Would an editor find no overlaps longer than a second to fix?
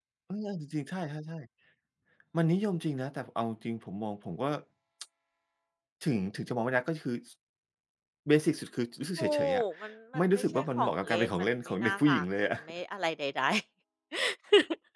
No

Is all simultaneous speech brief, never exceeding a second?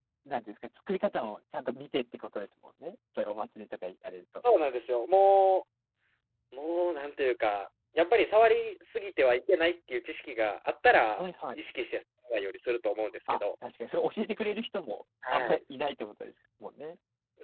Yes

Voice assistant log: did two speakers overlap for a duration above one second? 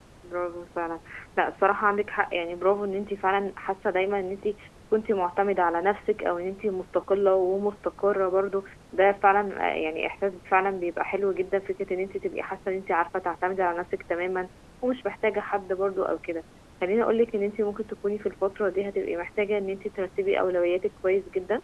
No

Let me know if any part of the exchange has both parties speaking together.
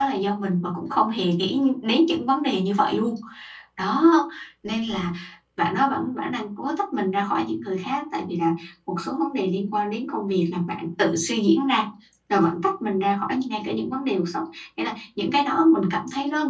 No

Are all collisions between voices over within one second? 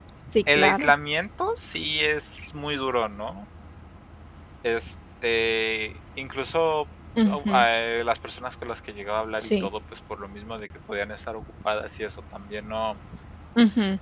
Yes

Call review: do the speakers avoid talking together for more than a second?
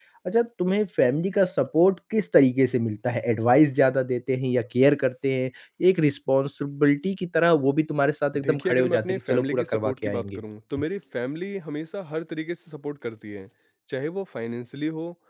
No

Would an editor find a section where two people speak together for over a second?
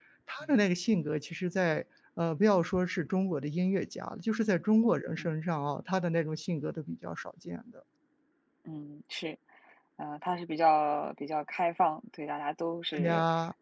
No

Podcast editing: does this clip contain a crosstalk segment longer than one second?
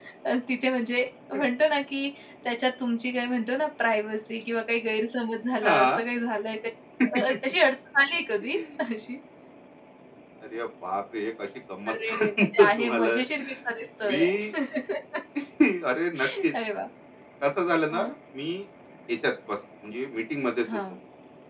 Yes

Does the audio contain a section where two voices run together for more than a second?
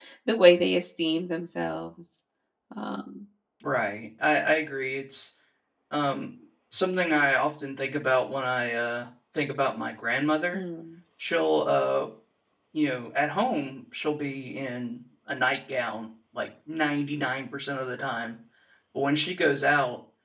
No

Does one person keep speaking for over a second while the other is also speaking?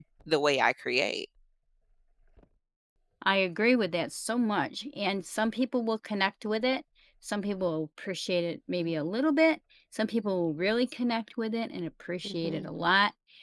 No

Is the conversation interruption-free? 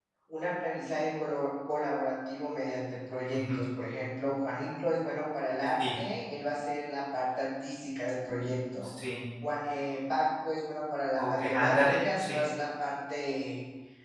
No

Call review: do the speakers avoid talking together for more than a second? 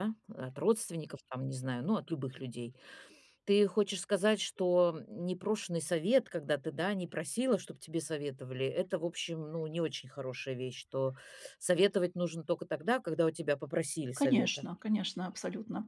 Yes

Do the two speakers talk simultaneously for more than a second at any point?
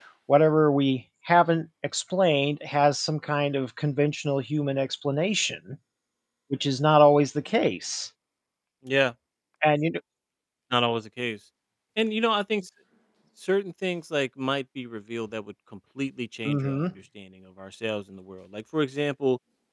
No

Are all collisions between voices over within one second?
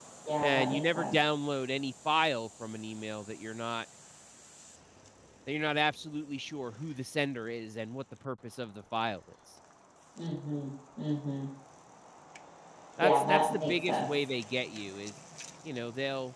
No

